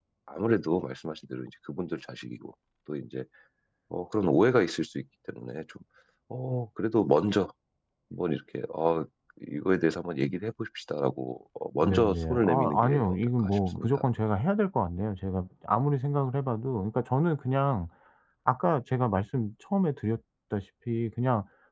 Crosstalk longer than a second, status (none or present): present